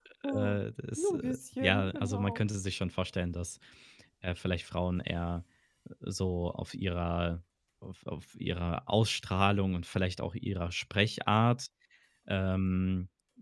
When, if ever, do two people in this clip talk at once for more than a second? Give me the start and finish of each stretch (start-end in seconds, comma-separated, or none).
1.0-2.4